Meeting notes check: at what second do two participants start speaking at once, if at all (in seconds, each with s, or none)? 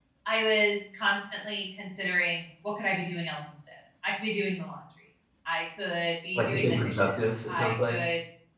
6.3 s